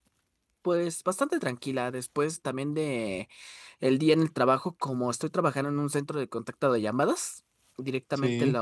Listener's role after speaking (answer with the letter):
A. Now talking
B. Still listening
B